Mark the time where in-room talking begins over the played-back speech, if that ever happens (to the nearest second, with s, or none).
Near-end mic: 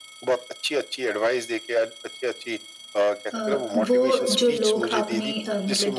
3 s